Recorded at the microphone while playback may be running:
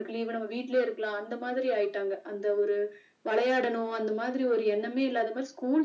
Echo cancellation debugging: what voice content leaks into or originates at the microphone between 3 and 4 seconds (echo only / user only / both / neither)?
echo only